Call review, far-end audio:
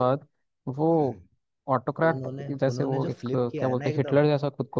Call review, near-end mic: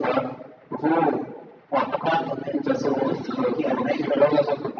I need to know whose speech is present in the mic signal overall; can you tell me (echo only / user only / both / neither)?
echo only